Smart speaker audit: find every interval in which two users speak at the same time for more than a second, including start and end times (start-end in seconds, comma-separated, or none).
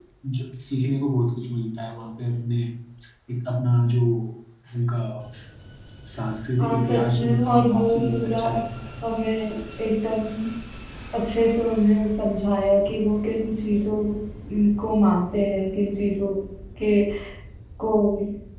6.6-8.4